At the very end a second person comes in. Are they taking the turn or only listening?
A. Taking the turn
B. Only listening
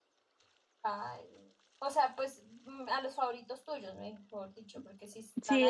A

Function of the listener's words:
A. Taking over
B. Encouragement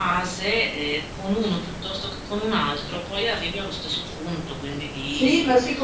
A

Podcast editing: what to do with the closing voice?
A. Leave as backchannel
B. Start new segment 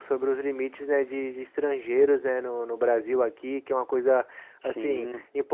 A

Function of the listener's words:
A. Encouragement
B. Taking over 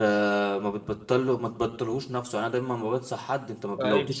A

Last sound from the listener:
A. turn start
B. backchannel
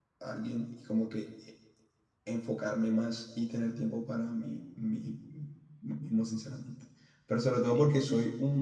B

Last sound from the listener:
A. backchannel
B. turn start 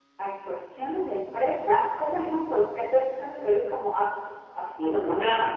B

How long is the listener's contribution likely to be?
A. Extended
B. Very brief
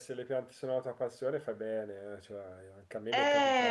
A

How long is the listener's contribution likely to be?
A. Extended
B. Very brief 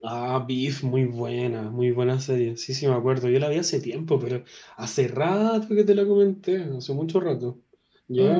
A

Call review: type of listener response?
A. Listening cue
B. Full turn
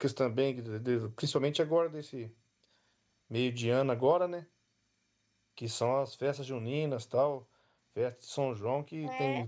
A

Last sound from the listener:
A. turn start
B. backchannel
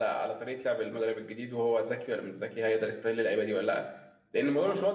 B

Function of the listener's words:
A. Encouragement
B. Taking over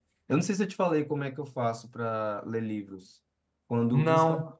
A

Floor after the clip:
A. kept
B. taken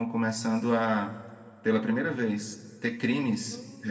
A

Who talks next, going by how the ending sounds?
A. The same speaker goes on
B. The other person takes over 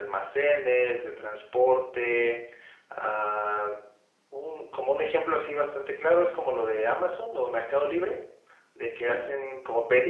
A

